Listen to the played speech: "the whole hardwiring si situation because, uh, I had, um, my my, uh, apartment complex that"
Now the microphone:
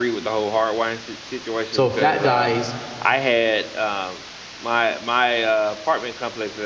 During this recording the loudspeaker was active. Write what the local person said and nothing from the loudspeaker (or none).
So if that dies,